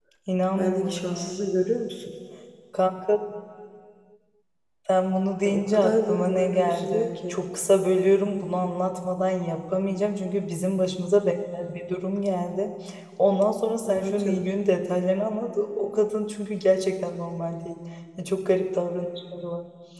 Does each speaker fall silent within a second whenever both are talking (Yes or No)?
No